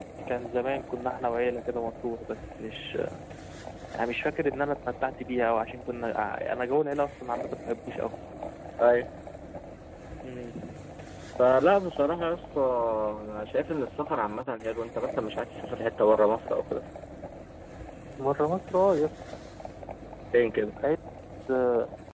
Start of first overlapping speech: none

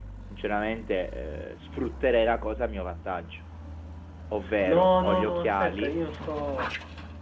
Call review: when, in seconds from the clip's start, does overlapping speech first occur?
4.6 s

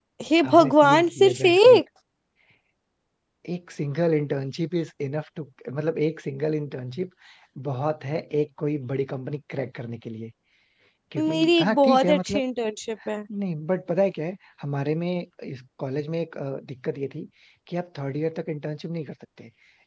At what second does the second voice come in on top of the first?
0.5 s

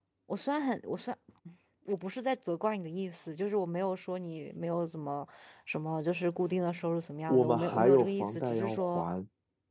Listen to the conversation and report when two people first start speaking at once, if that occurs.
7.3 s

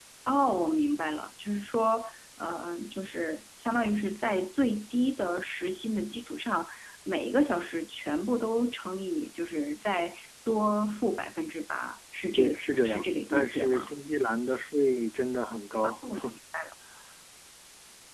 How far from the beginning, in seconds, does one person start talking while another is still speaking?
12.4 s

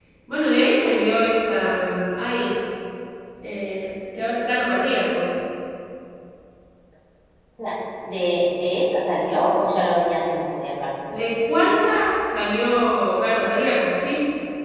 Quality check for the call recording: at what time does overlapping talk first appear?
none

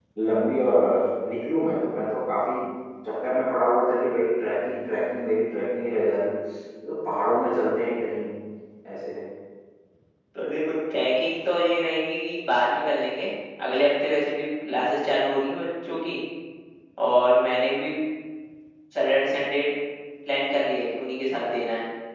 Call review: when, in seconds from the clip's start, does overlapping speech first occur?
none

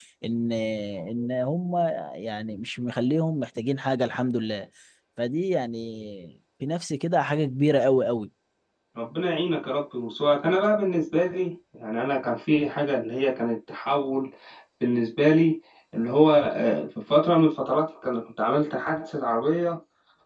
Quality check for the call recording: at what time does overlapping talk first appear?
none

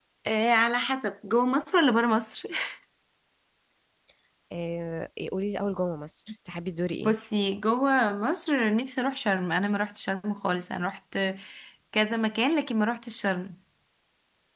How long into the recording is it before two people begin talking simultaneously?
none

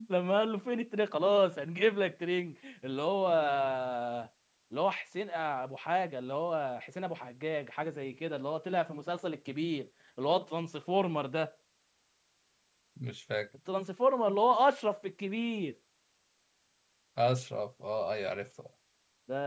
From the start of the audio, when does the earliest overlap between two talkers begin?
none

